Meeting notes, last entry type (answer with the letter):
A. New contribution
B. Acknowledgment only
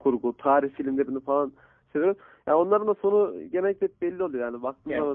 B